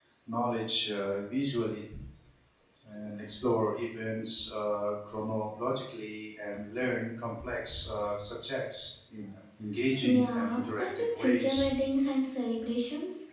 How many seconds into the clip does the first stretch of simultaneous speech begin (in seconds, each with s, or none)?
10.0 s